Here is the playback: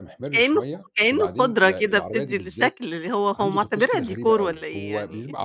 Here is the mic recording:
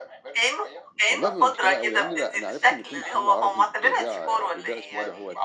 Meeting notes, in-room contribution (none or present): present